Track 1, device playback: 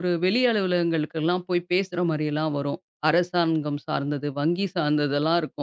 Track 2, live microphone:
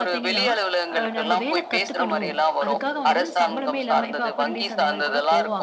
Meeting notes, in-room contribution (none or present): present